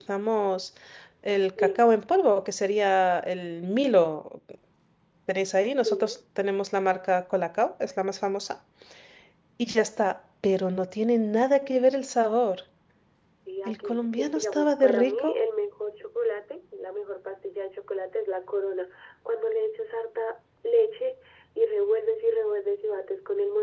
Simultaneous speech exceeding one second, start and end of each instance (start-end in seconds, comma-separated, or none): 13.7-15.3